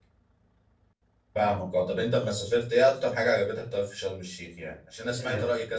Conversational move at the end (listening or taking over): listening